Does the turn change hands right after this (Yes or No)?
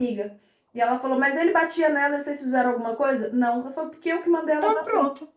No